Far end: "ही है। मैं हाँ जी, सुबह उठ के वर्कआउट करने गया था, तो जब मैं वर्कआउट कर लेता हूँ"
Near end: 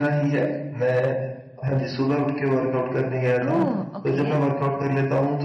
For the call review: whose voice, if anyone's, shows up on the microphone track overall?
both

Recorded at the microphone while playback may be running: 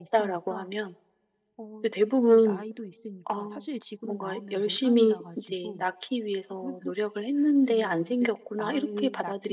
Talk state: both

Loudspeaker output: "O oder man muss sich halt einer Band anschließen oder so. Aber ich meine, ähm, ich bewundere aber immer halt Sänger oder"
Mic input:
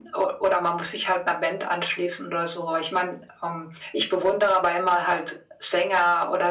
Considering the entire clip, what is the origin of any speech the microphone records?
echo only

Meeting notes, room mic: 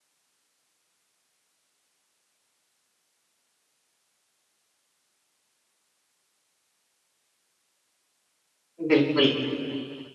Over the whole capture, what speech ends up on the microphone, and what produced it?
user only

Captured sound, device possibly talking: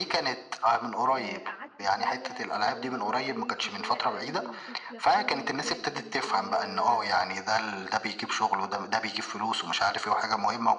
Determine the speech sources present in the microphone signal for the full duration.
both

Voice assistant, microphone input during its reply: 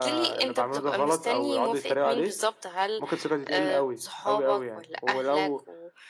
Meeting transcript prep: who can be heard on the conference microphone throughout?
echo only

